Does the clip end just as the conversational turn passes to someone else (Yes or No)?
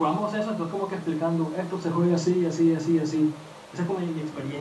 No